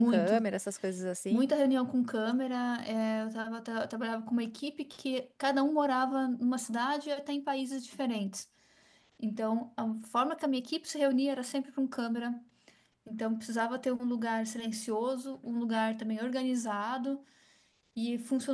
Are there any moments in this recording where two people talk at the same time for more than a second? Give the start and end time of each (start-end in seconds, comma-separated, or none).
none